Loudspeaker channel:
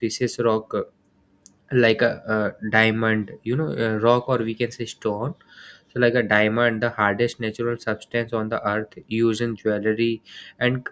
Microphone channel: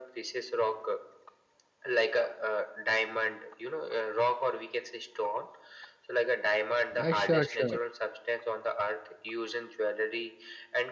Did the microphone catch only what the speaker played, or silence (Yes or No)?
No